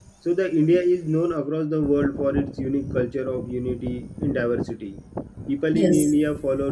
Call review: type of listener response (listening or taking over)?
listening